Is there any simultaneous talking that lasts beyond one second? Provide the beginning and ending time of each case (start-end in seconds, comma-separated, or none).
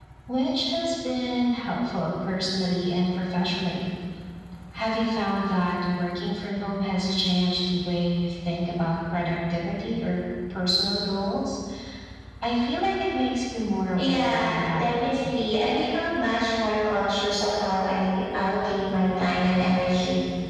13.9-15.2